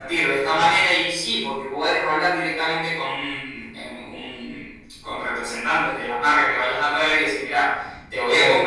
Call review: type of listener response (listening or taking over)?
listening